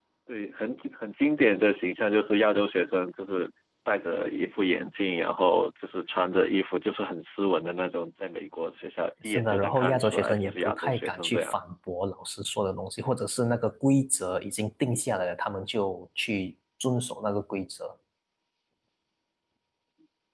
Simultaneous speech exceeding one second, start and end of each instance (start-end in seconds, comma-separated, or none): 9.2-11.5